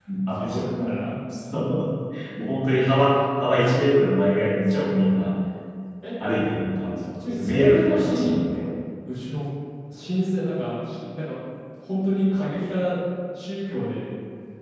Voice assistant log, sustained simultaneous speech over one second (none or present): present